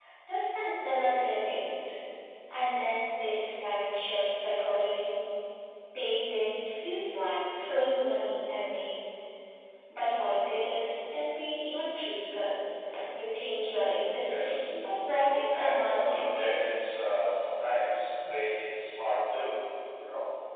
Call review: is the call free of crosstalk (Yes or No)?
No